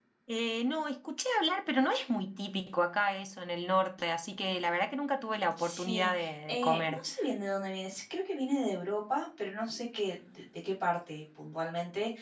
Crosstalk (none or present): present